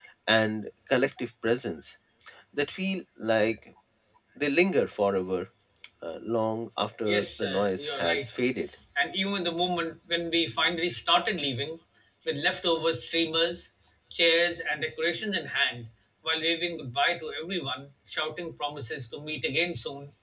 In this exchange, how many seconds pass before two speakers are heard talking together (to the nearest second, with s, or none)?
7 s